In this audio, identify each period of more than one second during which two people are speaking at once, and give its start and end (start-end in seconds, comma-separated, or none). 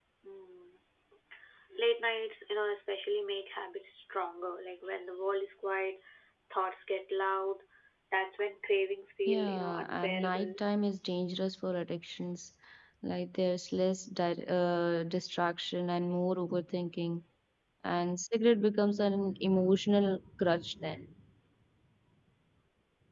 9.3-10.6